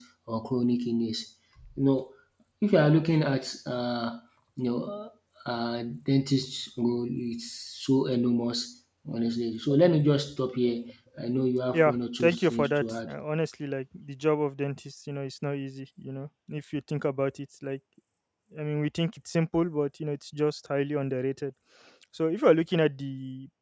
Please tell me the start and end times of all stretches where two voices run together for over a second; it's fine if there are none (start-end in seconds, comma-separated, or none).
11.7-13.1